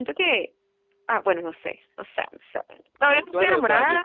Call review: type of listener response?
taking over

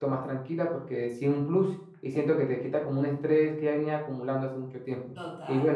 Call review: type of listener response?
taking over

